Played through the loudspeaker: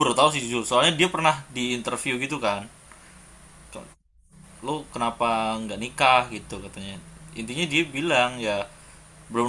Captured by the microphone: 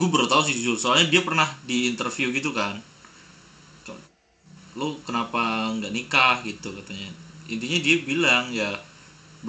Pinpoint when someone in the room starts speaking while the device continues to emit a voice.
none

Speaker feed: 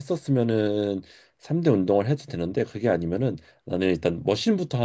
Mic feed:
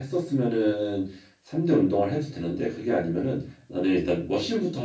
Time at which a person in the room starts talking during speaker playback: none

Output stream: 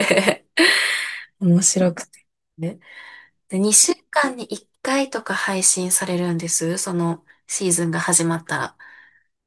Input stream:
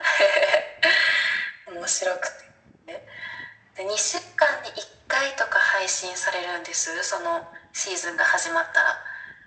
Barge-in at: none

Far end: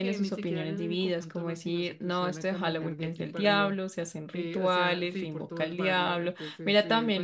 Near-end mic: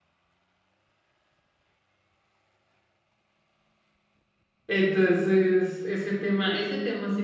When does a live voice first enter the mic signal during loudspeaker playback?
4.7 s

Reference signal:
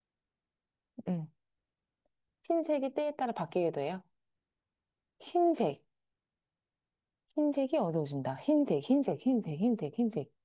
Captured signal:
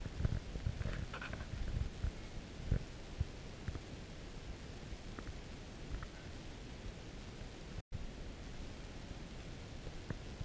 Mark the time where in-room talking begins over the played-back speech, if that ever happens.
none

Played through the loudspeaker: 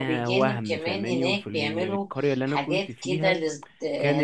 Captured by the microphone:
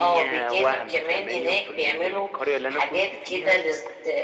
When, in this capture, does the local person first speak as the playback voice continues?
none

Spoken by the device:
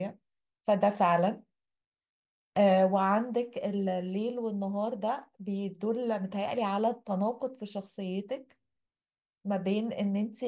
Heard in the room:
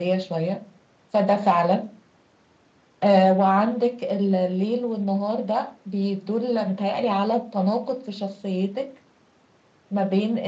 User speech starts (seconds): none

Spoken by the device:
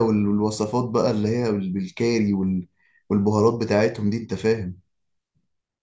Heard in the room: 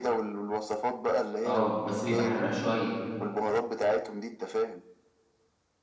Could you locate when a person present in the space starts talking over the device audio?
1.4 s

